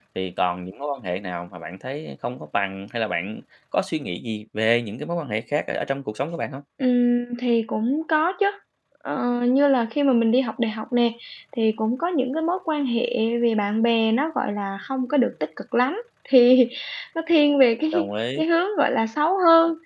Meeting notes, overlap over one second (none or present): none